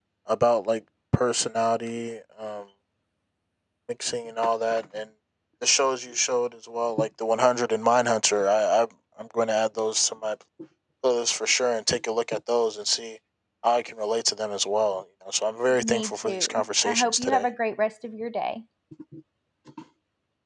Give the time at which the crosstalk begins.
16 s

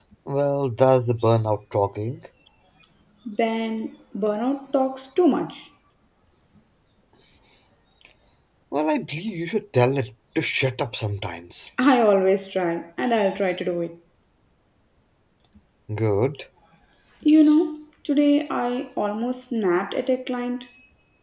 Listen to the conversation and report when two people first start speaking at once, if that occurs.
none

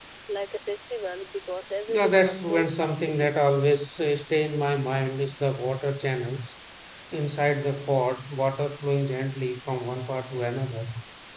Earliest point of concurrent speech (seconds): 2 s

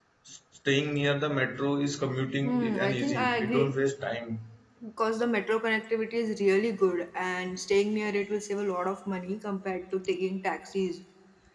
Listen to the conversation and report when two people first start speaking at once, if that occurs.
2 s

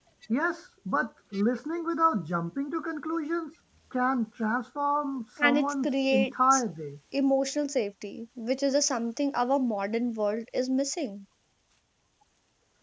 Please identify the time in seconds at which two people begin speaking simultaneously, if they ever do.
5 s

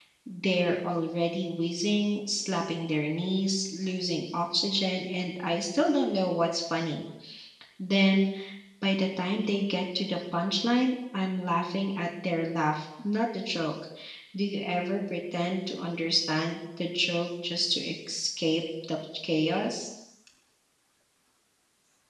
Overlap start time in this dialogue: none

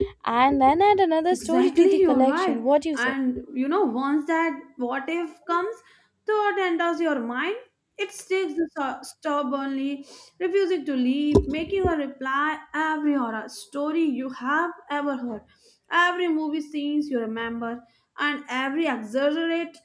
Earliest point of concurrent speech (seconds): 1 s

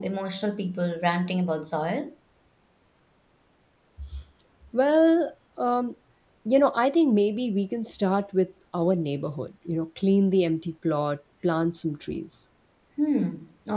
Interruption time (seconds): none

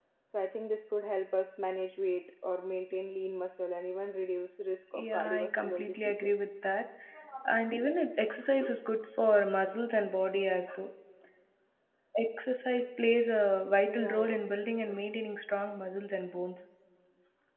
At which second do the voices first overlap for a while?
5 s

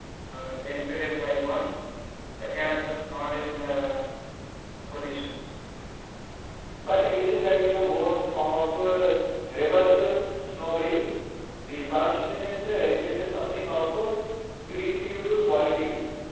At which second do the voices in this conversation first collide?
none

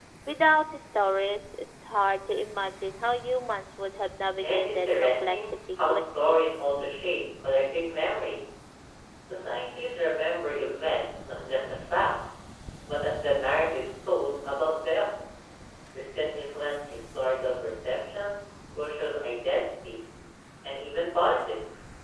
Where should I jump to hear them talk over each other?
4 s

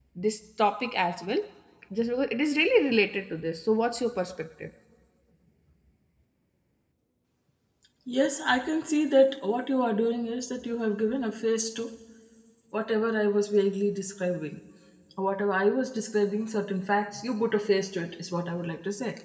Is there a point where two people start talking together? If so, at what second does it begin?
none

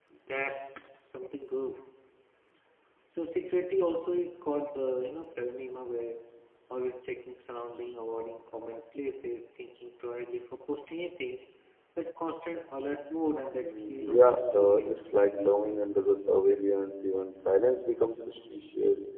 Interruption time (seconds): 14 s

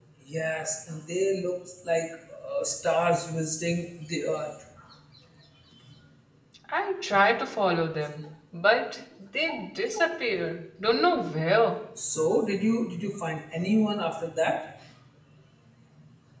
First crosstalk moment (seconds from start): none

